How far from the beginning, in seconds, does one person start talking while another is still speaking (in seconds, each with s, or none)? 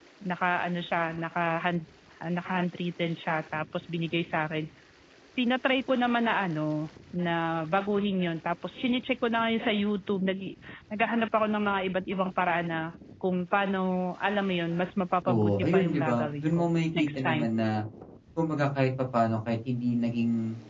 15.2 s